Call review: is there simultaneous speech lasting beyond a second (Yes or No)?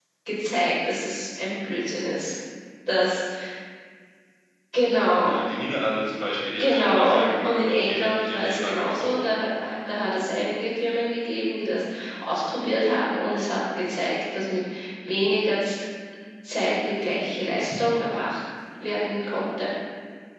Yes